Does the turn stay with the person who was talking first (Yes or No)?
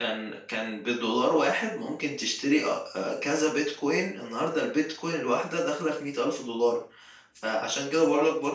Yes